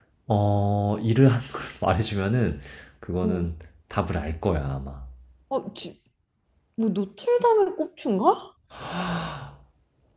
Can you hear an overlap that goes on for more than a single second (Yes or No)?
No